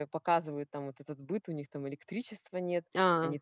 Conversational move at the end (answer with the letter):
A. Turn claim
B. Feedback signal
B